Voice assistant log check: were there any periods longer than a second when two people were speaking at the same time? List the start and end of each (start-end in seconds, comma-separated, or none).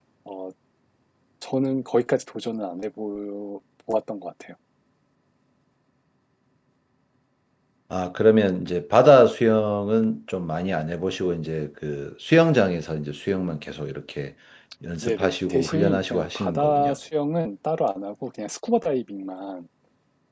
15.0-16.9